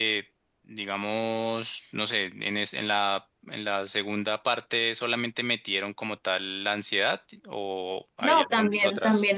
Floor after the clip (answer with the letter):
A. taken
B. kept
A